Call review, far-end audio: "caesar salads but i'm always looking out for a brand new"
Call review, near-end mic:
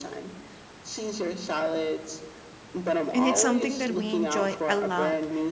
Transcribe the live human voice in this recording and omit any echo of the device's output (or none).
and it's something that we enjoy a lot